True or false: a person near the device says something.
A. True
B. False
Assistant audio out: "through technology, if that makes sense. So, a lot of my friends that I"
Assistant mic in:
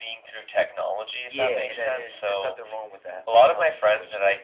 A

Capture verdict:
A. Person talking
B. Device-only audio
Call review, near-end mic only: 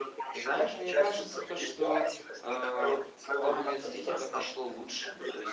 A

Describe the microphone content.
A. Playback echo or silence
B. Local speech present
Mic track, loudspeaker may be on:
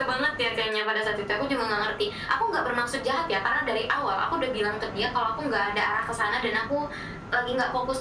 A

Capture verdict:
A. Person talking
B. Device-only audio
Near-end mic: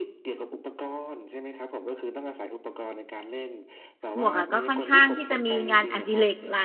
A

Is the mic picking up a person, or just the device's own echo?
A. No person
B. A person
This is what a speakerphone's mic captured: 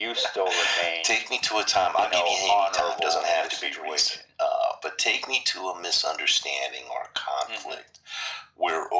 A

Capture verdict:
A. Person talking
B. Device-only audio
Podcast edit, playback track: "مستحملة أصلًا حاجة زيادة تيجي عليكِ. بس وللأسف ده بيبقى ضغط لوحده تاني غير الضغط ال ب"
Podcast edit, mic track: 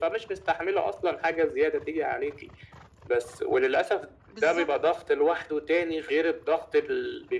A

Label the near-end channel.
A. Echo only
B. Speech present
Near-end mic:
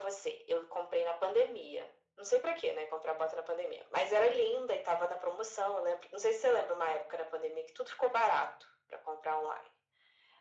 A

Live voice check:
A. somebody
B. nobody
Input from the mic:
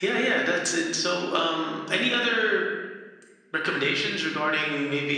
B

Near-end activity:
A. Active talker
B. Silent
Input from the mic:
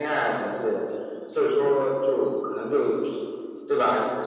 B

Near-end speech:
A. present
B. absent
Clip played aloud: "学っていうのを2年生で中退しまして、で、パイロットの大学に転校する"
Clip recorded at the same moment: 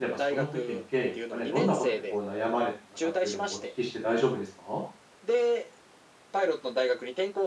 A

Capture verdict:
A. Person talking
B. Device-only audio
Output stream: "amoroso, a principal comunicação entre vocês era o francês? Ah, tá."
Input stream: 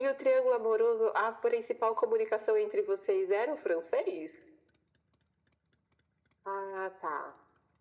B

